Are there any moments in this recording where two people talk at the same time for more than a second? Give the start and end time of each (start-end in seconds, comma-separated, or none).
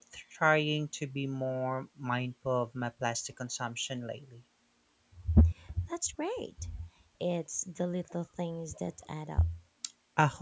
none